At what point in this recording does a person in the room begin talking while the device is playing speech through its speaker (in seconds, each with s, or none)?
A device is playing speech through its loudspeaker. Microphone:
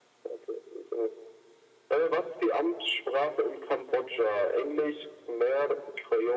none